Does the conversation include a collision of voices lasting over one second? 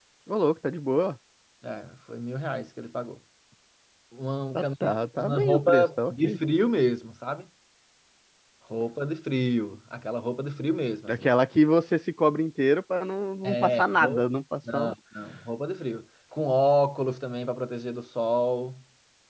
Yes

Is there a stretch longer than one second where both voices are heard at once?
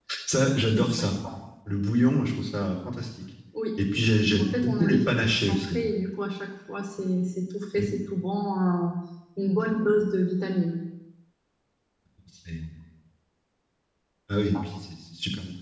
Yes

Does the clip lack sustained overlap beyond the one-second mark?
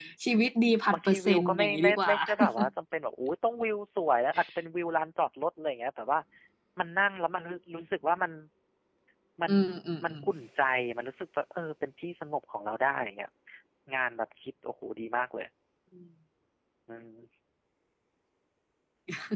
No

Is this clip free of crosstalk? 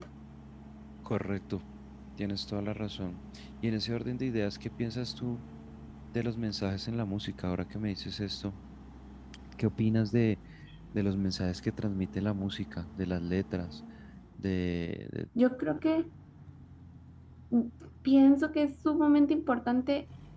Yes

